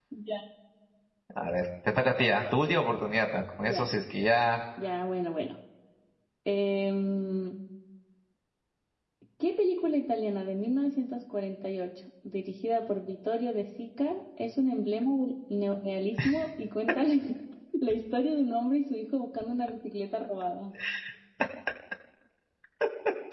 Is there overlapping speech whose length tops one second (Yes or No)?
No